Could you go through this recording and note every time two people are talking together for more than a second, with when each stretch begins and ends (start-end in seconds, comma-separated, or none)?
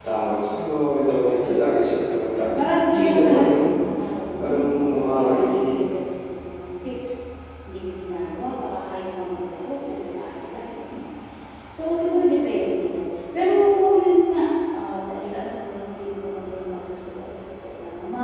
2.1-3.6, 4.4-5.7